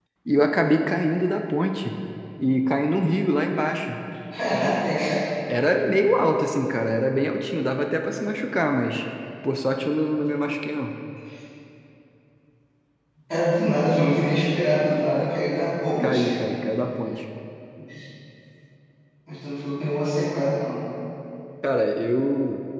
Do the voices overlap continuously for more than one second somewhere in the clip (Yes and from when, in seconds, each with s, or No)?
No